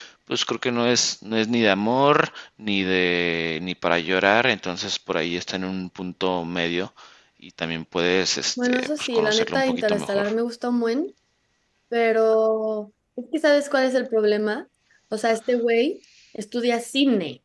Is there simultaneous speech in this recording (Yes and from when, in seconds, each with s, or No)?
Yes, from 8.6 s